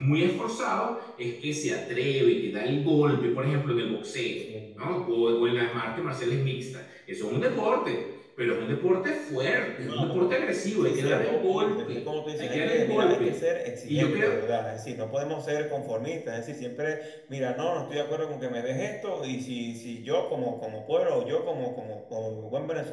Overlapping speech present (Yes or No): Yes